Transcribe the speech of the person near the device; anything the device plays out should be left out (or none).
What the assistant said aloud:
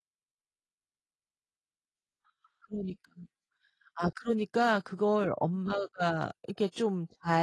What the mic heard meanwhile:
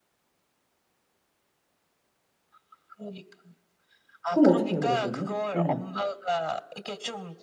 그럼 어떡해요 그럴 때는? 예.